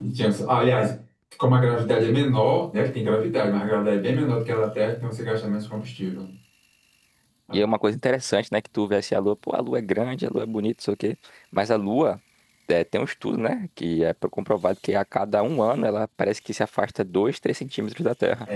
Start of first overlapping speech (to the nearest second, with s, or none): none